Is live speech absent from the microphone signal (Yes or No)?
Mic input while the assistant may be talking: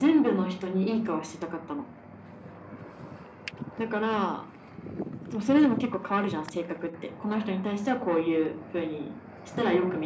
Yes